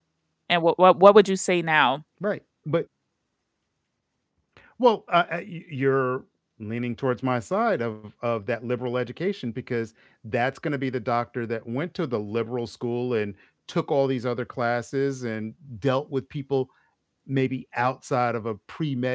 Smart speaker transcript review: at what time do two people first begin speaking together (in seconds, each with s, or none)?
none